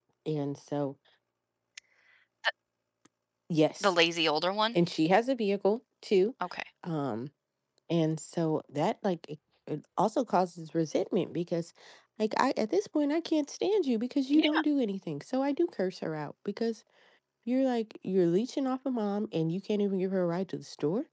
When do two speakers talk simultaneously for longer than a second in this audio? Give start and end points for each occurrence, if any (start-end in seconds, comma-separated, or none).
none